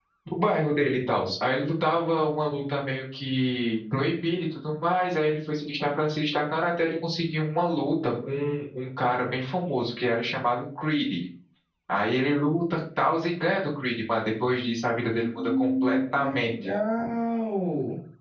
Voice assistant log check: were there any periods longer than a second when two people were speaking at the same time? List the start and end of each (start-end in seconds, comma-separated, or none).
15.1-16.5